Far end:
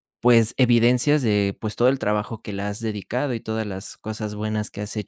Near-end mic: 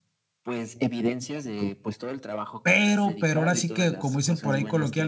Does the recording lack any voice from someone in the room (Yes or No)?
No